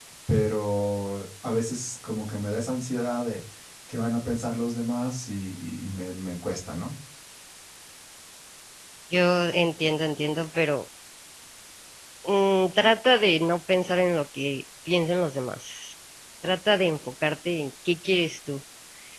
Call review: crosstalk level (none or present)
none